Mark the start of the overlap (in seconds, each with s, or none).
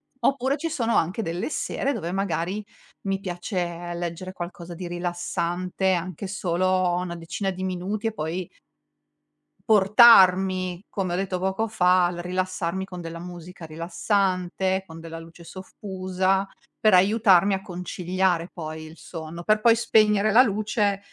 none